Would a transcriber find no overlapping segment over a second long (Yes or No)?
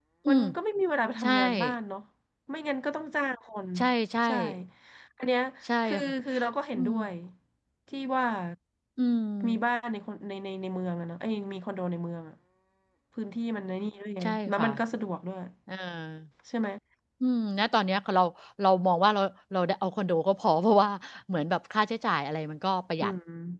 Yes